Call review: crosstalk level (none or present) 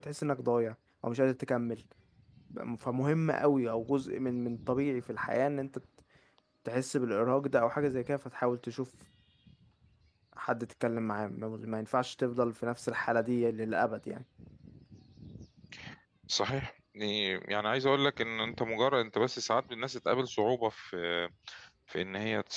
none